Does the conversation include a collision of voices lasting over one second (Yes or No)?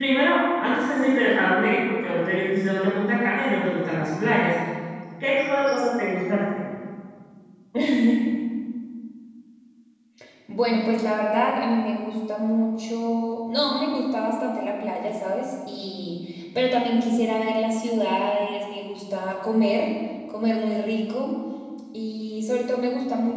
No